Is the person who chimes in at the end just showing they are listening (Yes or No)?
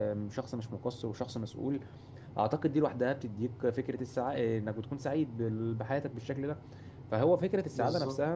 Yes